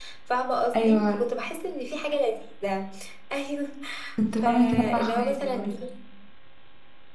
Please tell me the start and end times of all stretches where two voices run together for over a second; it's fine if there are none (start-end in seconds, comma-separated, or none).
4.4-5.8